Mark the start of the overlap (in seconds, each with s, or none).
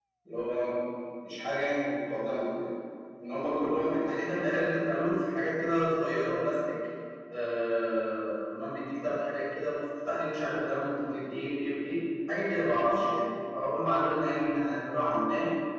none